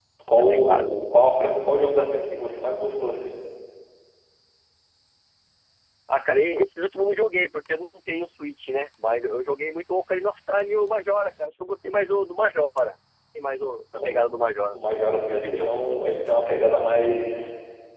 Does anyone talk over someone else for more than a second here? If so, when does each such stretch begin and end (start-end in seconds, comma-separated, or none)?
none